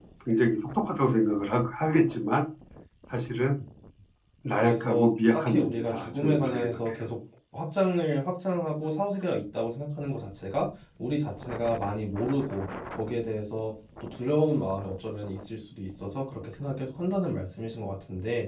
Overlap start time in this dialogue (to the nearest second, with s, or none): 5 s